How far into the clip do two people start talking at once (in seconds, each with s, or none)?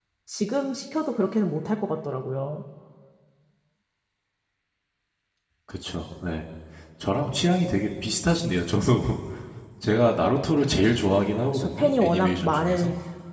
11.5 s